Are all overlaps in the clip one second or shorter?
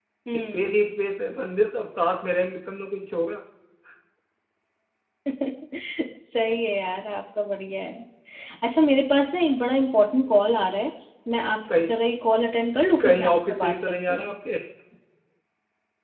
No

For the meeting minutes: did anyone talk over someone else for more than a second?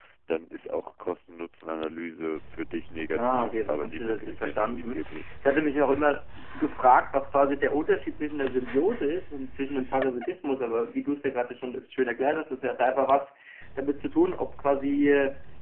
Yes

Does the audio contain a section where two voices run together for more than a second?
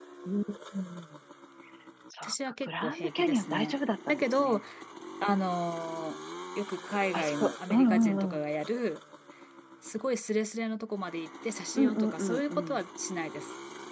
Yes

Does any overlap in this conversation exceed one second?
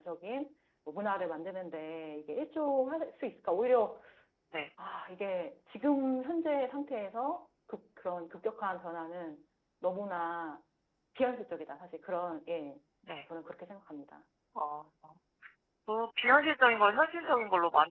No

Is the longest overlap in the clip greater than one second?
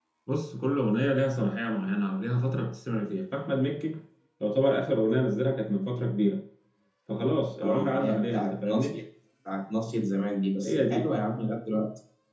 Yes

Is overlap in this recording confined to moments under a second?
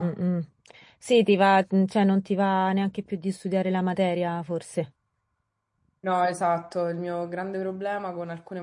Yes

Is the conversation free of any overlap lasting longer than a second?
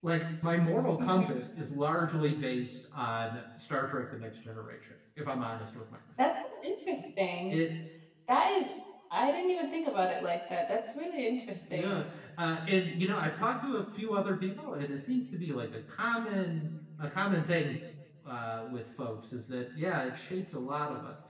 Yes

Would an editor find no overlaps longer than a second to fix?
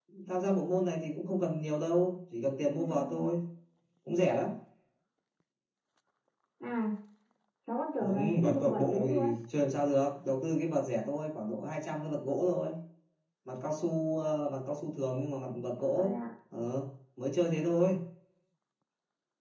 No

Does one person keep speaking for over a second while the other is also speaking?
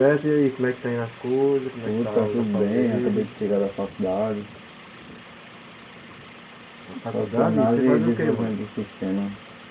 Yes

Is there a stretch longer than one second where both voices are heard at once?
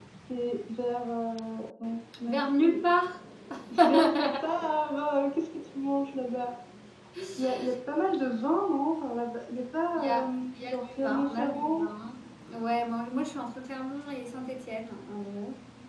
Yes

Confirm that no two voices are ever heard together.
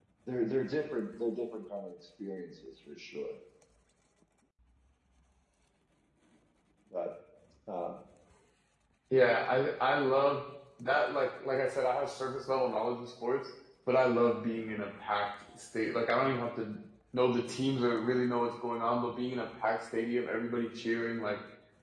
Yes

